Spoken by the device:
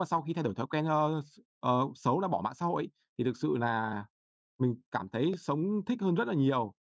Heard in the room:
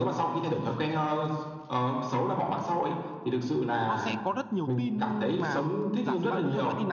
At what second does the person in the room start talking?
3.9 s

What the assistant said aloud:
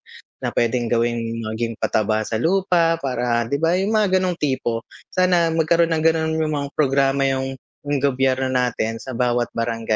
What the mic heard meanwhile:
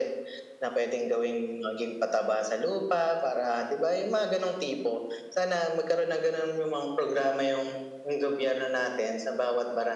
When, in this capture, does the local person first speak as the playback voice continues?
none

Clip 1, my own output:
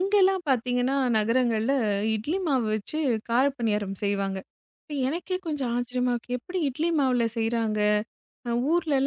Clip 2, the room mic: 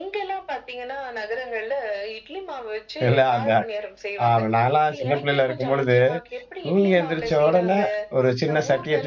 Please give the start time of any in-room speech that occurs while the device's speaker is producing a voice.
3.1 s

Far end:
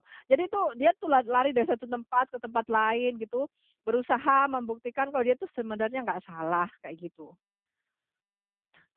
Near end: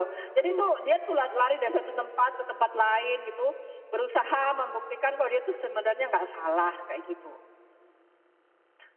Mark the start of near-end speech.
0.3 s

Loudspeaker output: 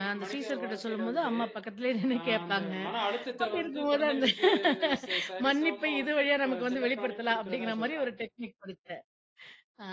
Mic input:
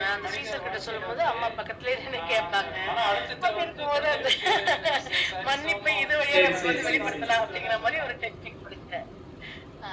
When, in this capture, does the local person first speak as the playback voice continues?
6.3 s

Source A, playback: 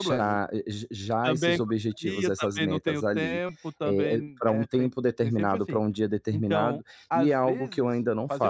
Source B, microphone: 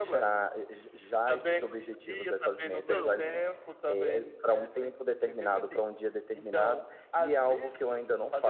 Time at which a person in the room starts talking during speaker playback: 2.7 s

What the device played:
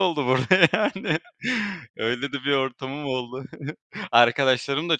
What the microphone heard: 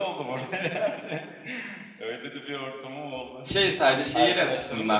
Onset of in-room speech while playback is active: 3.2 s

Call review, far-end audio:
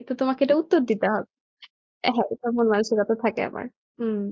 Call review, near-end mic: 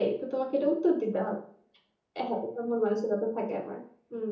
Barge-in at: none

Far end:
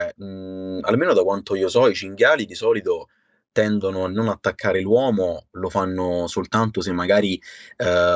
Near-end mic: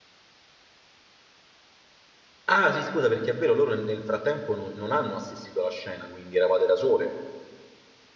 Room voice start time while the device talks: 2.5 s

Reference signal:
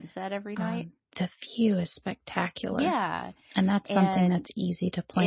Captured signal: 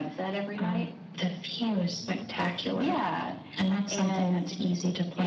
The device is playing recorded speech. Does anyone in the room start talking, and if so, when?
none

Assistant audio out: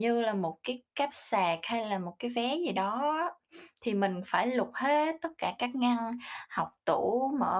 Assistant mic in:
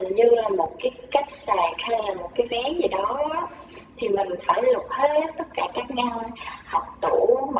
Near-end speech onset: none

